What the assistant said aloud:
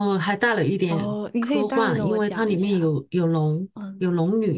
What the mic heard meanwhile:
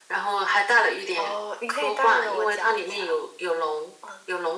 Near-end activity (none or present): none